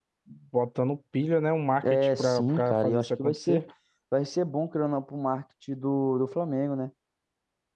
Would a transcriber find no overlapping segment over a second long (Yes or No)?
No